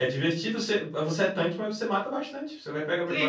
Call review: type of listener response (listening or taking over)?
taking over